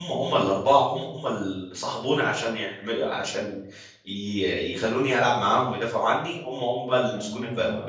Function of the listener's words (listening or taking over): taking over